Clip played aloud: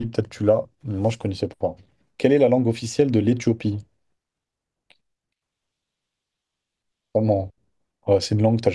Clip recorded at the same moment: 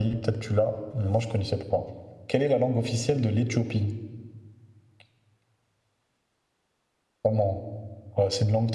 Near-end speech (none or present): none